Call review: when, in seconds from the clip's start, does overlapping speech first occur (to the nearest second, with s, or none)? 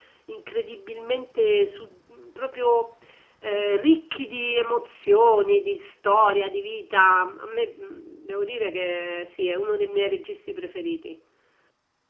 none